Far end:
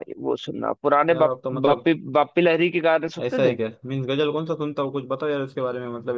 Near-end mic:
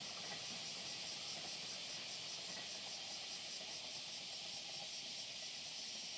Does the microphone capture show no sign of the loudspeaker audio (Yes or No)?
Yes